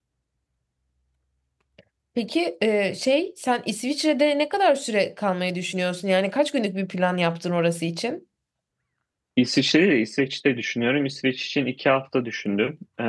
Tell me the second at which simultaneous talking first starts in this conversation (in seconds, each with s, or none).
none